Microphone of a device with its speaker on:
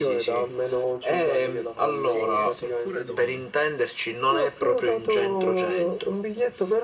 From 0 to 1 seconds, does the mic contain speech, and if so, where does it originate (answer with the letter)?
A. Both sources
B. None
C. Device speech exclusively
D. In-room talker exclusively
C